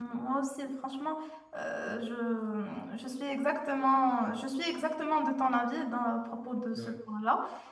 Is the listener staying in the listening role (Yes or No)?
Yes